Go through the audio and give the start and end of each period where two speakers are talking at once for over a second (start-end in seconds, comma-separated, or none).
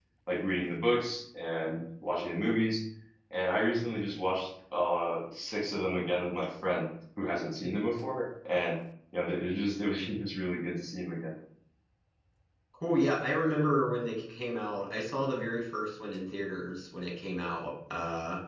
none